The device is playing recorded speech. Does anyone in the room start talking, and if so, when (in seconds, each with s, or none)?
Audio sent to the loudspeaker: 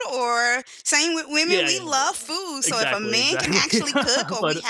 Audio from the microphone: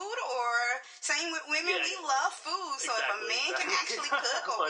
none